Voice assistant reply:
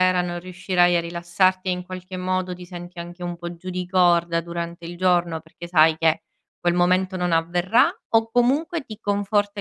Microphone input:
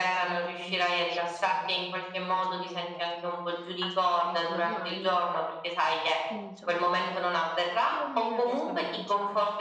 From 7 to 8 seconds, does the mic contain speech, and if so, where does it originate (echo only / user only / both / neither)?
both